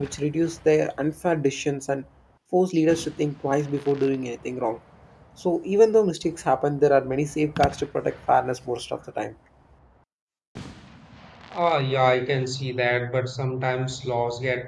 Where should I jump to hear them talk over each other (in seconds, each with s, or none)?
none